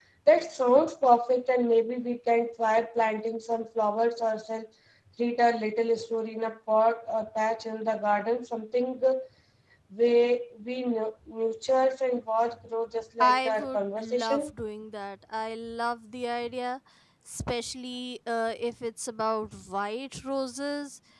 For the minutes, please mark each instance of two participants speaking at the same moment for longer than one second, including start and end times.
13.2-14.5

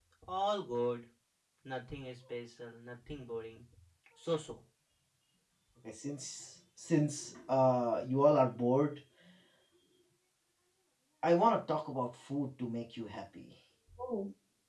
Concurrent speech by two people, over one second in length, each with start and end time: none

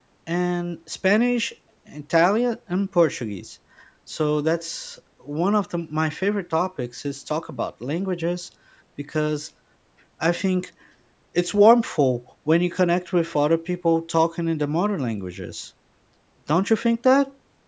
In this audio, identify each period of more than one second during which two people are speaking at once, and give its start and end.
none

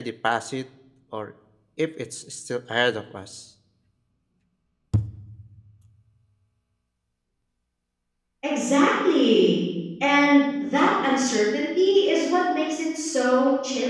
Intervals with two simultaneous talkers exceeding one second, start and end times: none

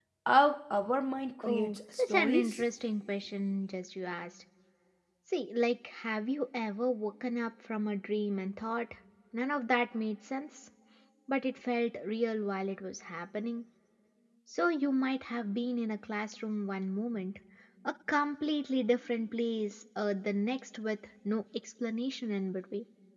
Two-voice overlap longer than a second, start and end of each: 1.4-2.6

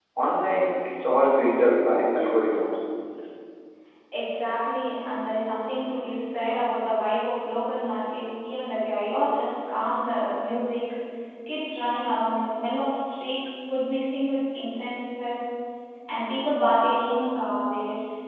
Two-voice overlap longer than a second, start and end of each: none

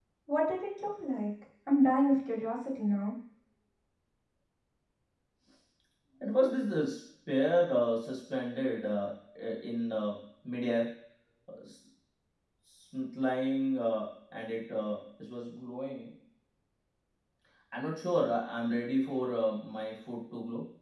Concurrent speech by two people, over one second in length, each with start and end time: none

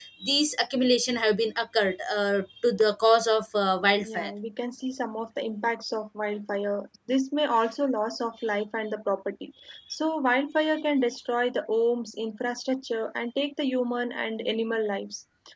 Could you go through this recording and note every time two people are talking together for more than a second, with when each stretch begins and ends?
none

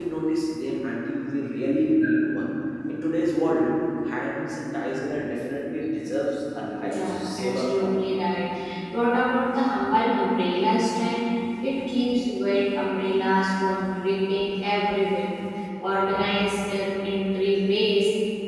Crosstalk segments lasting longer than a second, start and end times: 6.8-8.1

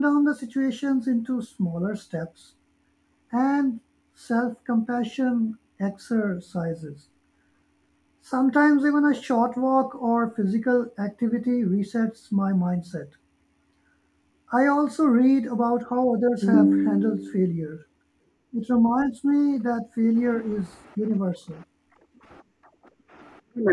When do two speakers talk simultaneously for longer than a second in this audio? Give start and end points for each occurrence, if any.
none

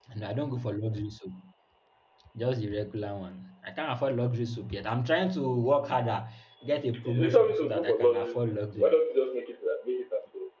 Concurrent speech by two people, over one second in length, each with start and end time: 7.0-8.9

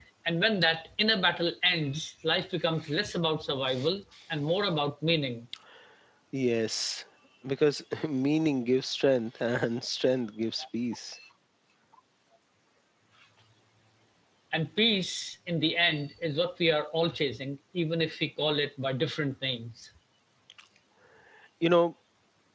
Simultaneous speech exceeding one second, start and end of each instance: none

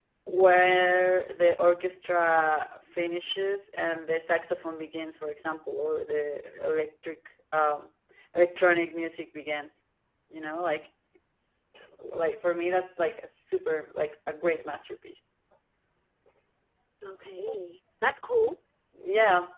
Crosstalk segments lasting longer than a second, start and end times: none

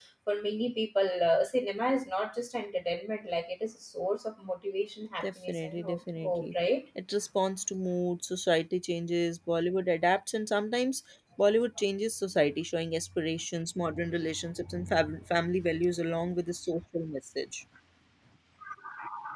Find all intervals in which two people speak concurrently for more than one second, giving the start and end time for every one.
5.2-6.5

